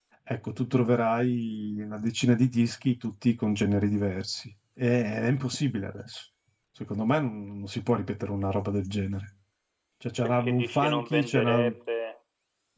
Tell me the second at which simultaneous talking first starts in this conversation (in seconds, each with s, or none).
10.2 s